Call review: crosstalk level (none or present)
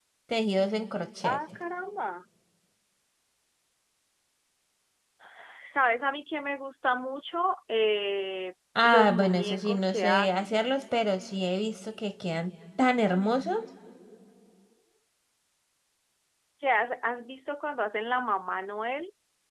present